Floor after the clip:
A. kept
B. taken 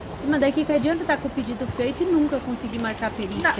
B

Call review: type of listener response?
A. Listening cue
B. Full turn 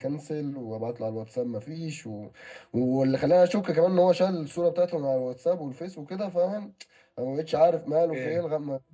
A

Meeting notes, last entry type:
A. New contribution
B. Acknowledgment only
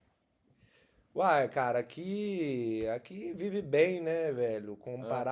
B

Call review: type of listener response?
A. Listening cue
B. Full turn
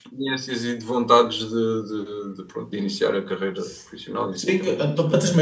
B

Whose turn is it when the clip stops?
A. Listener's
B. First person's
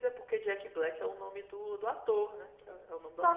A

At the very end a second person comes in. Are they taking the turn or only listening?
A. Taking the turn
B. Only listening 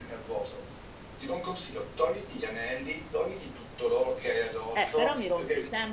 A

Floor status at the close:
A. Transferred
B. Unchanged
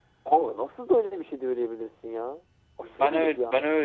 A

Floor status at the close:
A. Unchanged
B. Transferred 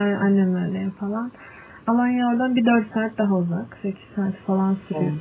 A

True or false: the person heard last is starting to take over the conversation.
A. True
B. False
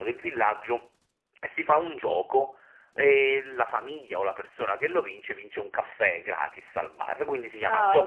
B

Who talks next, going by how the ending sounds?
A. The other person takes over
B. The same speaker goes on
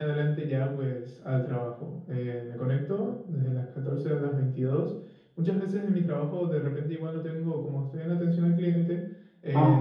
B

